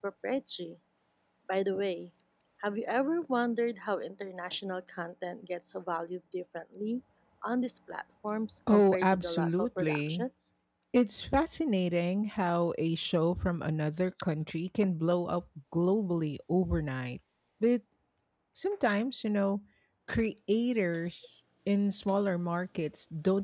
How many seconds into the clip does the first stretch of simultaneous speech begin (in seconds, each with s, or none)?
8.7 s